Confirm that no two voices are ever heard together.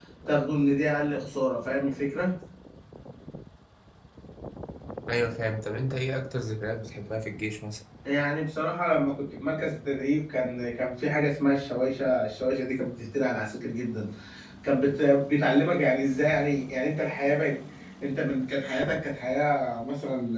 Yes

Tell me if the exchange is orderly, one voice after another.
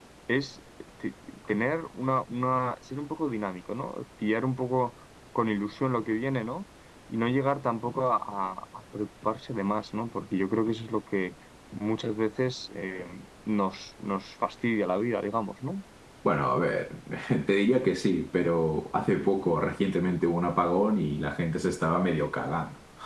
Yes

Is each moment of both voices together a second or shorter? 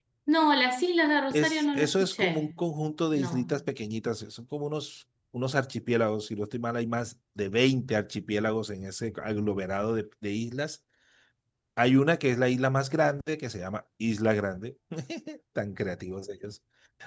No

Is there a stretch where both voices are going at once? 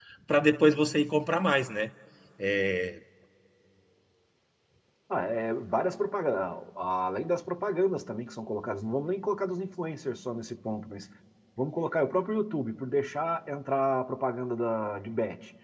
No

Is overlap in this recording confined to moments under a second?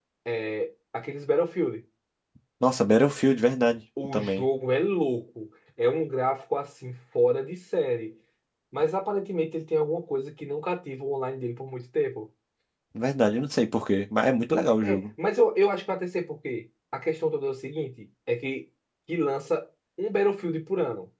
Yes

